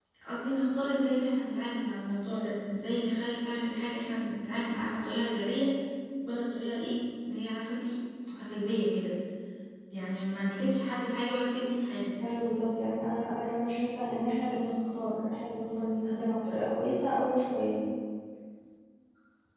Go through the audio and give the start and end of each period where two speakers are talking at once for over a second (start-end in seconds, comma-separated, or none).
none